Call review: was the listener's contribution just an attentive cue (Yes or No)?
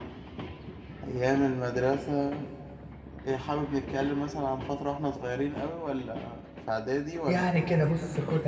No